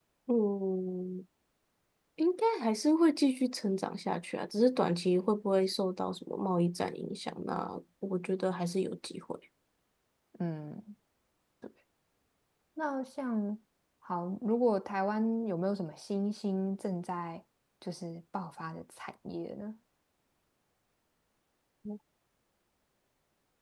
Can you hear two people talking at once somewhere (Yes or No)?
No